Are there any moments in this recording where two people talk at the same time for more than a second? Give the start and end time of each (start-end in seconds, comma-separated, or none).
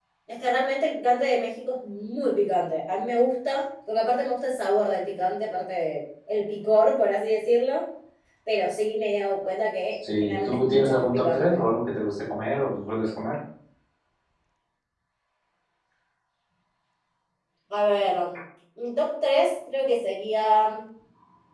10.2-11.6